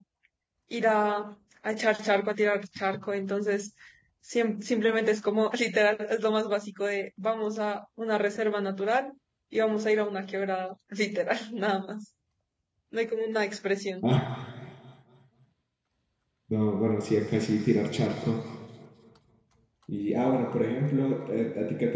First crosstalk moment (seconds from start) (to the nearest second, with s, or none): none